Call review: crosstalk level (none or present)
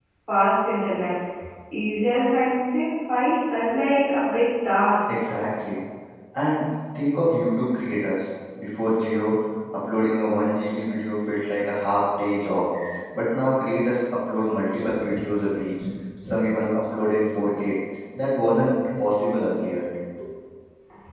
none